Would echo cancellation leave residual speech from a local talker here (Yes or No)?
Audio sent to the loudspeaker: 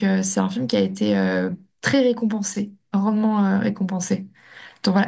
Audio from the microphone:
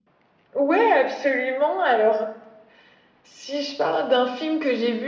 Yes